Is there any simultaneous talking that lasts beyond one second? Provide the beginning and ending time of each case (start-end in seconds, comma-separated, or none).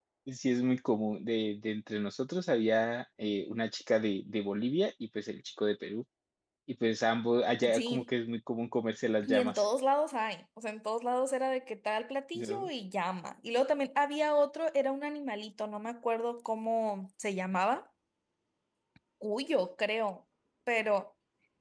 none